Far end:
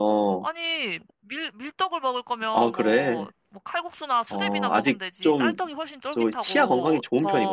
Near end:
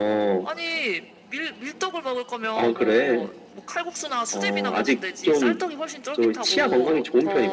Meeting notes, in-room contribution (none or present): none